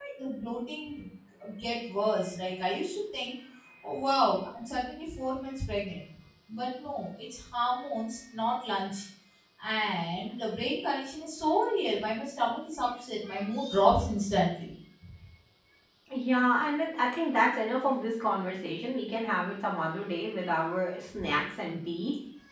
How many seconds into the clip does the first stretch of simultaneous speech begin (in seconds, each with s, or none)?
none